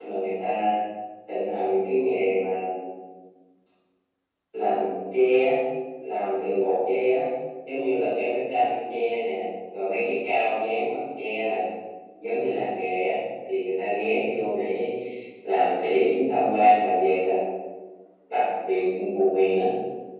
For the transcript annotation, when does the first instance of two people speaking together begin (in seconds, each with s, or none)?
none